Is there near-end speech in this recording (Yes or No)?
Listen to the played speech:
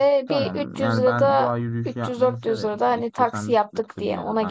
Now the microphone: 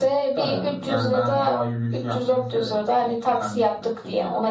No